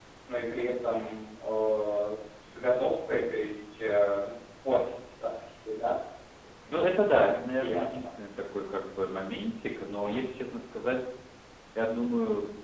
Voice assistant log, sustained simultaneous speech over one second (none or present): present